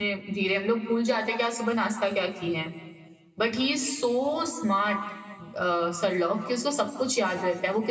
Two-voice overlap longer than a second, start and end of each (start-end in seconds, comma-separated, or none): none